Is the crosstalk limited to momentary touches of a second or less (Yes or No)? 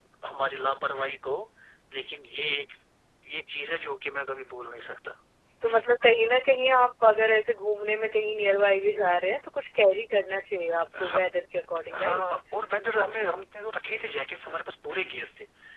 Yes